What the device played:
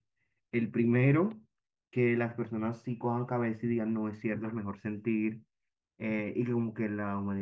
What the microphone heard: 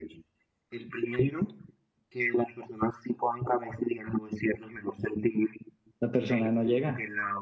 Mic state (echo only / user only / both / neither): both